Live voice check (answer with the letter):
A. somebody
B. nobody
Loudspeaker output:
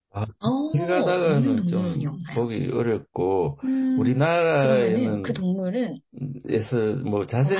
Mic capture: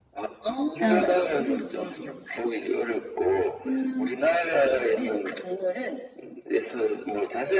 A